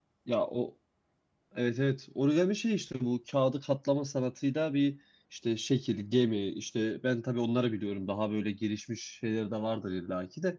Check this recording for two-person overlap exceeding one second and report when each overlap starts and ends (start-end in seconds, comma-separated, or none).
none